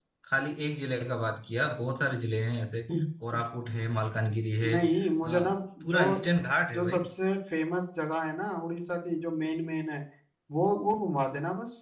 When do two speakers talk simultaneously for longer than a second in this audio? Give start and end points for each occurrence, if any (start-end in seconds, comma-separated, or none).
none